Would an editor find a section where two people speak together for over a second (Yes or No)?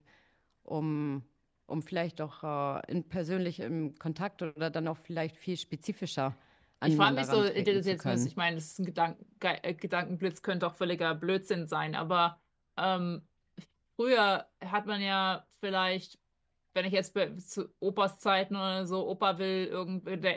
Yes